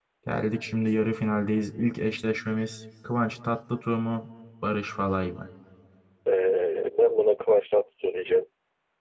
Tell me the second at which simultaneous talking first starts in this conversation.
none

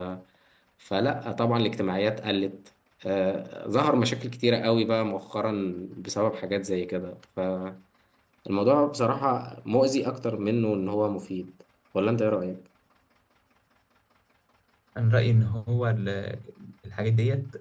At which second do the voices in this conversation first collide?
none

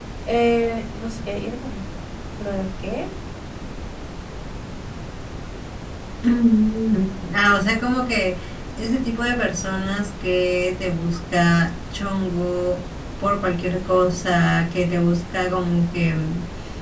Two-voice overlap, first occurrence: none

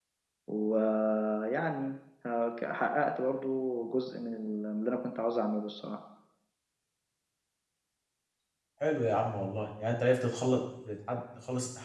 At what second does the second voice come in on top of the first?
none

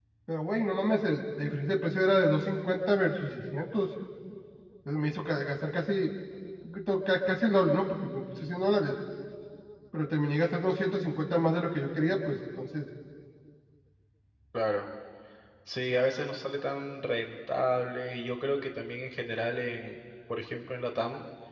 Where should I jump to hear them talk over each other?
none

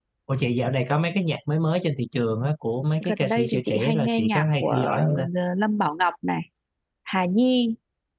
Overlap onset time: 3.0 s

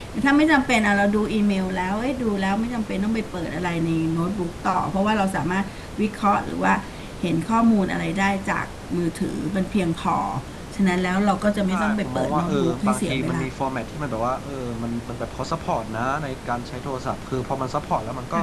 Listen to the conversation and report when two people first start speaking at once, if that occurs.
11.7 s

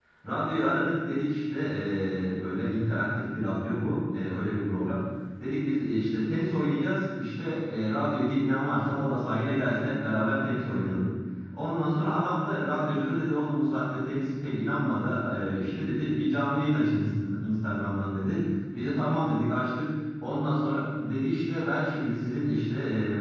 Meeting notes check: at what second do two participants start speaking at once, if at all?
none

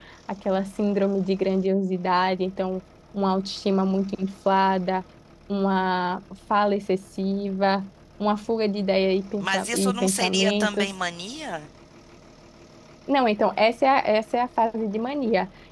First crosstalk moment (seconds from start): 9.4 s

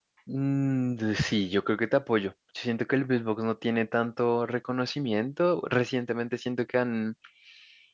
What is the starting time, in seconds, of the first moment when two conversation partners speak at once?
none

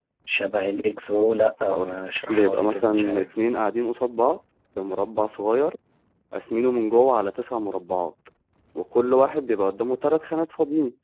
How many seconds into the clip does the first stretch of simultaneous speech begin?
1.6 s

